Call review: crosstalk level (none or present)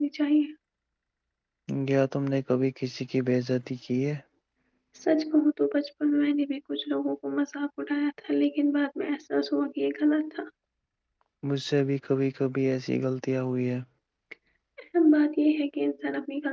none